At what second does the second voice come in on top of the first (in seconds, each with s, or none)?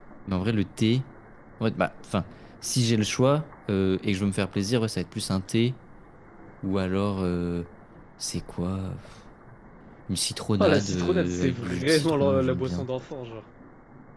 10.6 s